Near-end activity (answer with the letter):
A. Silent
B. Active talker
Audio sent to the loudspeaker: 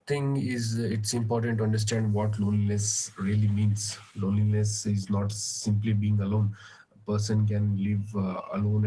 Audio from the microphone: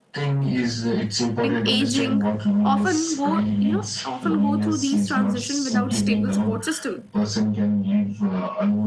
B